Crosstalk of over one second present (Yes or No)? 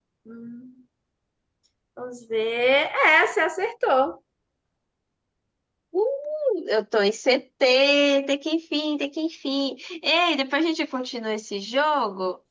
No